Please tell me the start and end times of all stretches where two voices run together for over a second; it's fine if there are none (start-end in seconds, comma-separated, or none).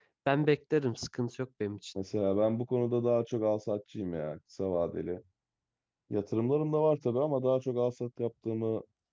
none